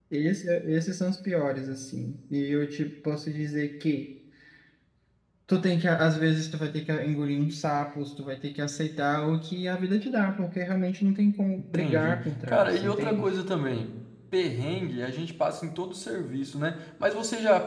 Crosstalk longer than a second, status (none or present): present